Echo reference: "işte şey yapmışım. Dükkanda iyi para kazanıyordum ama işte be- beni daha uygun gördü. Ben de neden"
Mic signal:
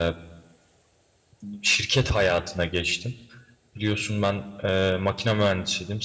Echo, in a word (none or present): none